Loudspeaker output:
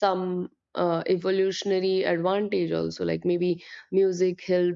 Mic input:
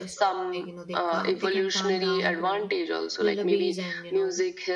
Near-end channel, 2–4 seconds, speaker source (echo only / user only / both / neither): both